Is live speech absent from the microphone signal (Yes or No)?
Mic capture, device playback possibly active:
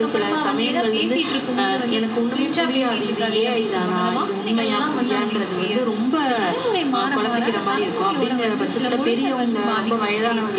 Yes